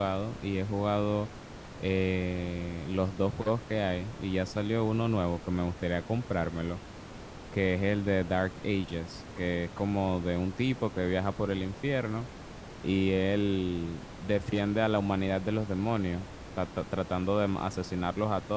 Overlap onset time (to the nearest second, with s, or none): none